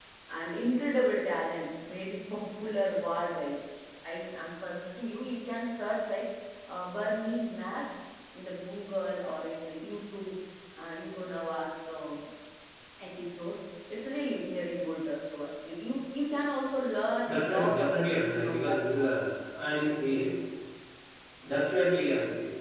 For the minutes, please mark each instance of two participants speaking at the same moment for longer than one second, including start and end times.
17.3-19.1

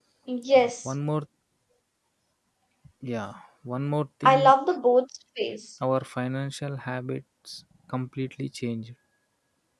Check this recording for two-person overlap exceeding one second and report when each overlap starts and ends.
none

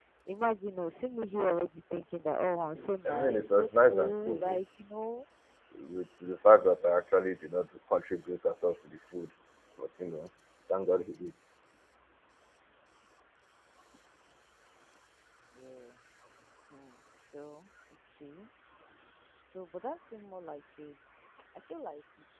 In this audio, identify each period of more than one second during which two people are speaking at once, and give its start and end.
3.1-4.6

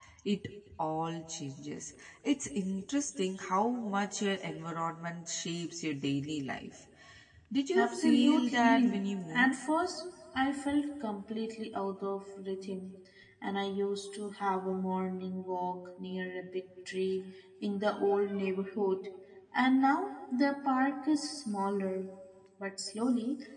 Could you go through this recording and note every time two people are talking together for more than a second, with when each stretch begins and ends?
7.8-9.6

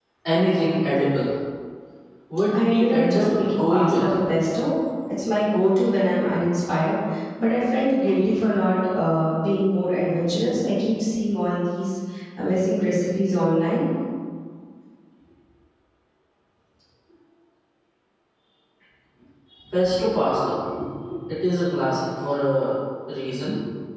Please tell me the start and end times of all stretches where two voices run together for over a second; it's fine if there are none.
2.5-4.0

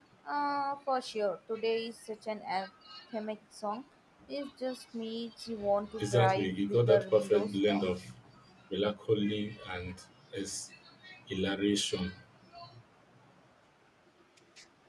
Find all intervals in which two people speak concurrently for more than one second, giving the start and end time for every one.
6.0-7.8

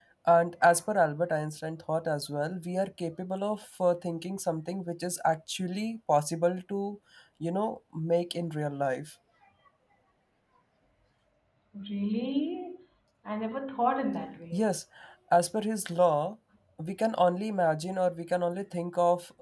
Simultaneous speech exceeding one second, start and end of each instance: none

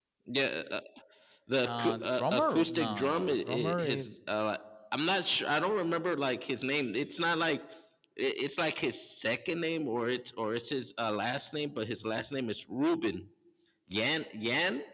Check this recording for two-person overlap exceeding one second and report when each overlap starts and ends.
1.6-4.0

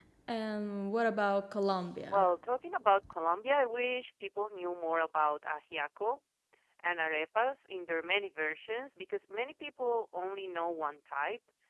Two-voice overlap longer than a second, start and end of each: none

